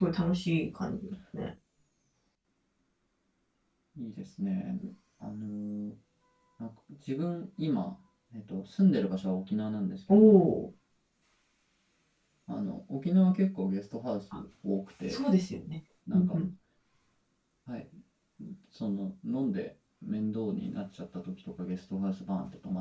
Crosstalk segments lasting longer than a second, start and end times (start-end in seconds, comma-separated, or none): none